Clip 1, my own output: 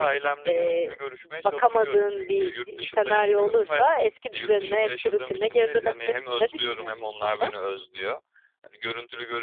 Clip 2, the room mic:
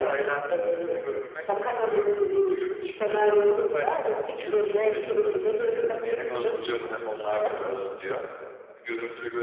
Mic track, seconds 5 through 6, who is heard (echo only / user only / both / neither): echo only